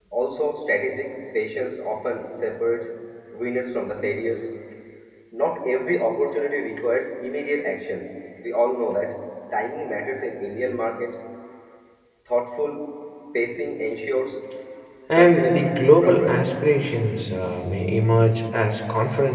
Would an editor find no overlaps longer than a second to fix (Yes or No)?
No